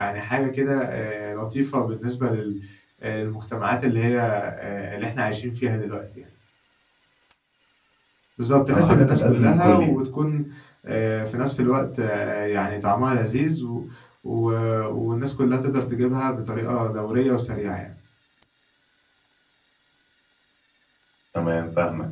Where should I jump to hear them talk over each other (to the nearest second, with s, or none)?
9 s